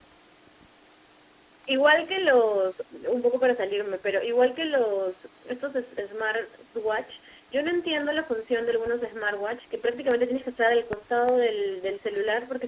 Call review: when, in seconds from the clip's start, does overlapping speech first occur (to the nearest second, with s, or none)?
none